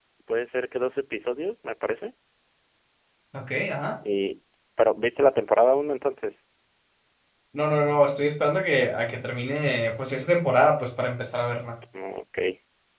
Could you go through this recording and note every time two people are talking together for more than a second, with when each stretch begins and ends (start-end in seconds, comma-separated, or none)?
none